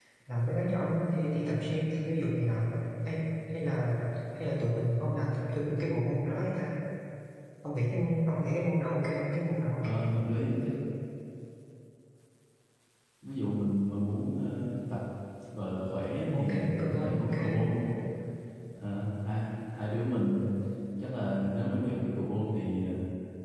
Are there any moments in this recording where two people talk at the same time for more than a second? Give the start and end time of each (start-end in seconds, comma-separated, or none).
16.3-17.6